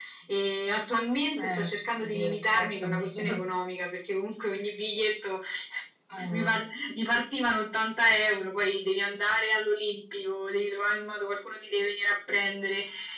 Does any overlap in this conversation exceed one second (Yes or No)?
Yes